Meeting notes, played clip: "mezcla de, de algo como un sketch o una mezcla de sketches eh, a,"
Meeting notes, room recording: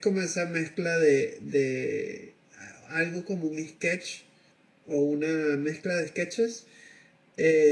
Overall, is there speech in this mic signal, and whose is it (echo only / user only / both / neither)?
echo only